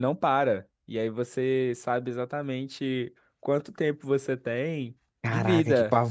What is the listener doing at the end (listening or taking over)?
taking over